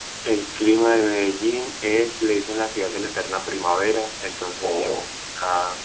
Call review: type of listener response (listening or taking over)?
listening